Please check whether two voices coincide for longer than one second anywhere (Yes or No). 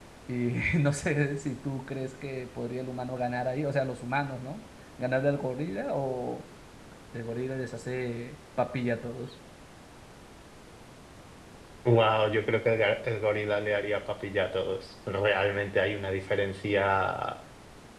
No